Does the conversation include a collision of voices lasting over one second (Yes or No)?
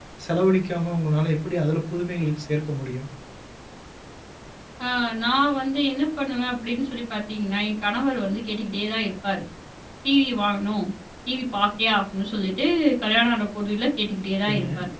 No